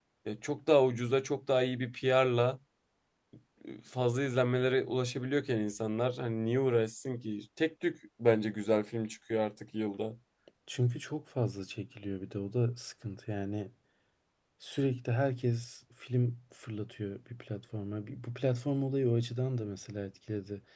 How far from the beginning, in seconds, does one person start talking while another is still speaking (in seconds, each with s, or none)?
none